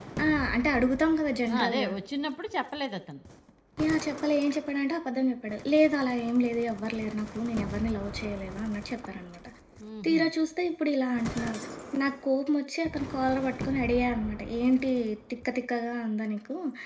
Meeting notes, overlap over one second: none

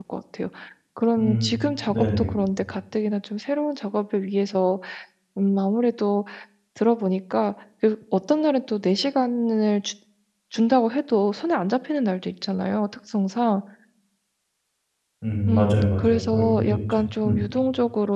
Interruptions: present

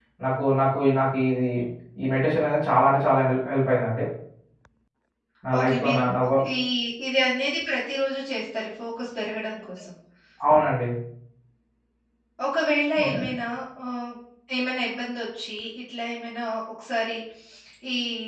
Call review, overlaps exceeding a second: none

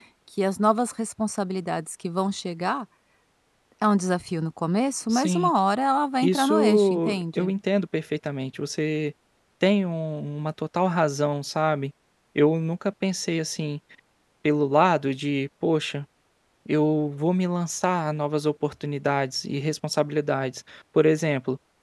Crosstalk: present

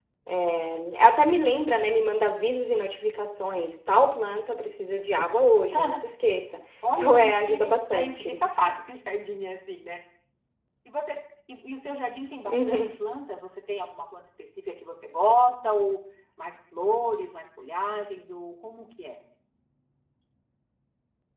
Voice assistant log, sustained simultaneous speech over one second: present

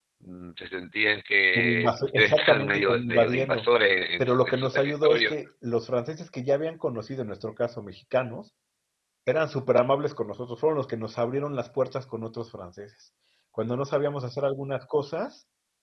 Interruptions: present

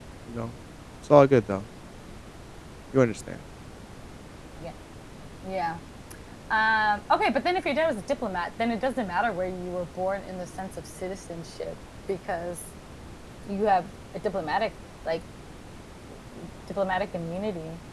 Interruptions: none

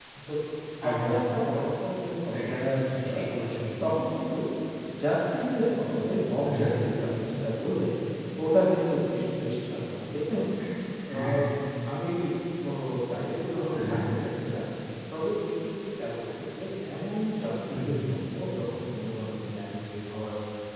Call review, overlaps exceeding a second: none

